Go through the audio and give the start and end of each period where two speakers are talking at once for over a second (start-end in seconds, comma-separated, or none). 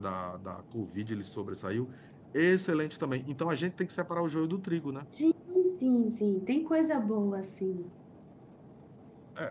none